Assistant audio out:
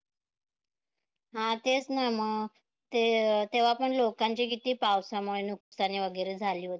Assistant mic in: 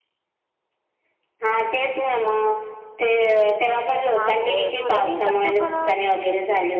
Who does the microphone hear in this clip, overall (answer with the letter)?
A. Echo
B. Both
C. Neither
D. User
B